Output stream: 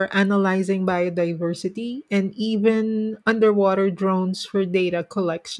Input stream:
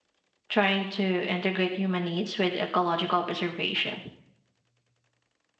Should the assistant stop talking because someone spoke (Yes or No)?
Yes